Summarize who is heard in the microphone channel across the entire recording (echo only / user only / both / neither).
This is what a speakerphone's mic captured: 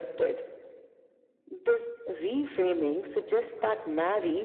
echo only